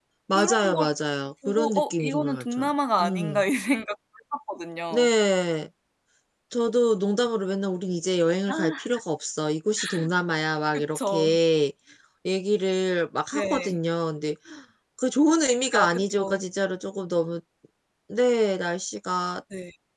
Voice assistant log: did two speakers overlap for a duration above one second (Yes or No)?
Yes